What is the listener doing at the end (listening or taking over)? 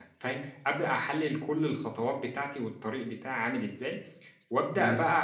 listening